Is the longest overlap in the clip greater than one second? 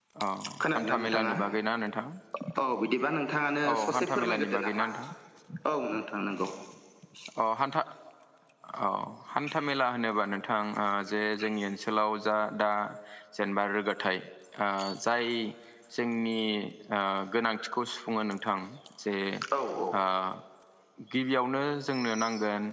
Yes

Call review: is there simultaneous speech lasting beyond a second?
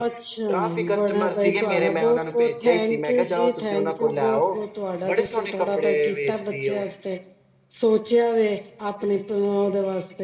Yes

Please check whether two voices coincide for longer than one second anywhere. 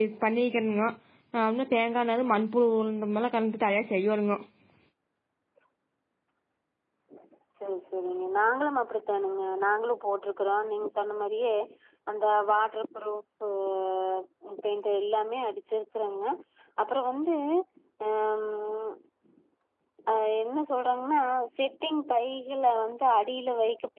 No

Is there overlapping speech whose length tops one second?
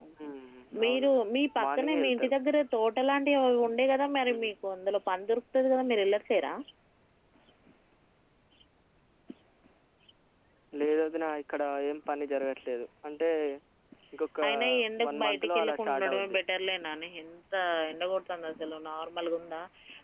Yes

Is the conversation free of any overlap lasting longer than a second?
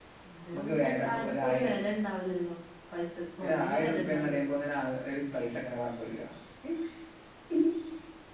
No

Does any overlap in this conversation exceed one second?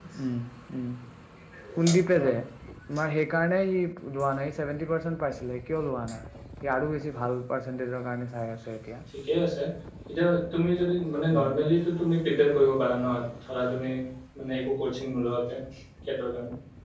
No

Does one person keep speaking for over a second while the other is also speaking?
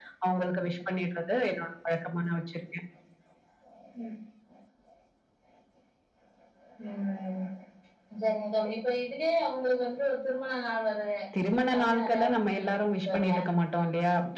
Yes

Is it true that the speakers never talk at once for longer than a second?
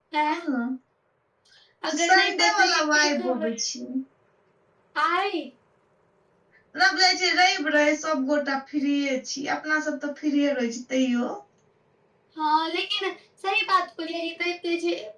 No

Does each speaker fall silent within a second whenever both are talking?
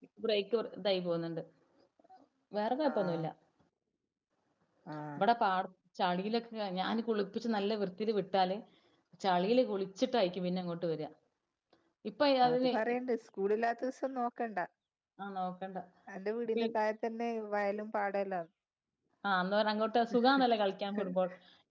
Yes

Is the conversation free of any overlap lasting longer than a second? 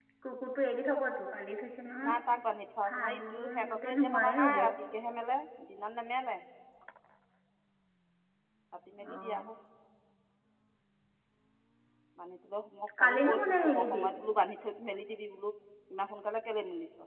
No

